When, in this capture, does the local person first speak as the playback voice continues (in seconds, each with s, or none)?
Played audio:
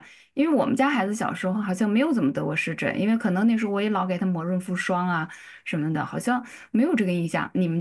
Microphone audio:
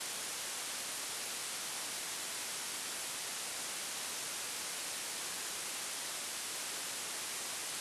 none